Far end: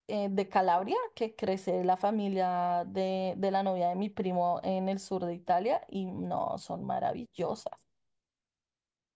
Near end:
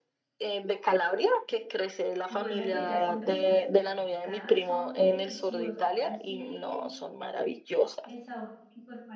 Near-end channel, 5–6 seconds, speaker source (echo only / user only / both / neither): both